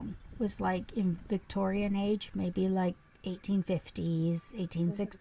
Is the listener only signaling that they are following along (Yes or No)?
Yes